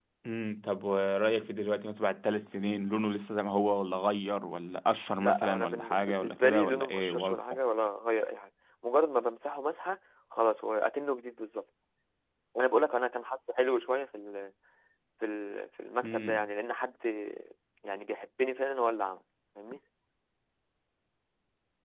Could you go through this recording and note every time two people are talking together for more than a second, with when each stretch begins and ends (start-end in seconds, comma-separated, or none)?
5.2-7.4